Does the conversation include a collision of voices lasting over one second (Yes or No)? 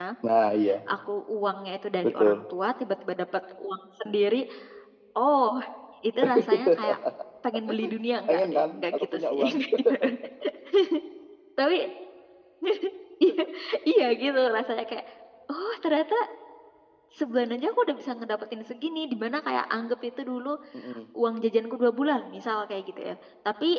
Yes